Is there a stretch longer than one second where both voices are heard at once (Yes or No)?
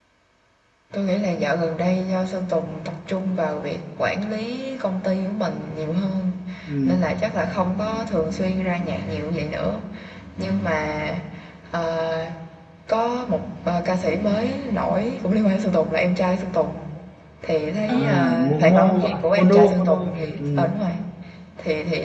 Yes